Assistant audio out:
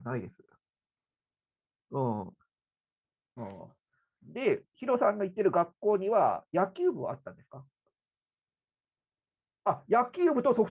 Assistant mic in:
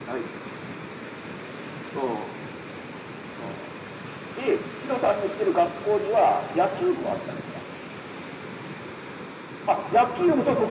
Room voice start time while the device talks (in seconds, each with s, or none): none